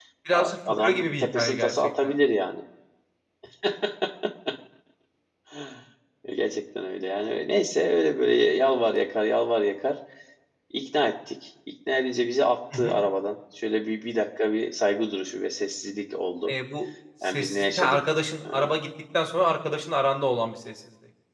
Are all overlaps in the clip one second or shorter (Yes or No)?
No